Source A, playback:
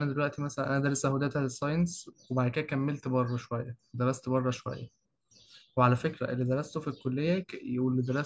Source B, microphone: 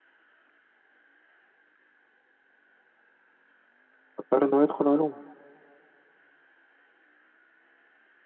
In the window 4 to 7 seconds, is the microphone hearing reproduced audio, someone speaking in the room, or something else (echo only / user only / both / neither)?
user only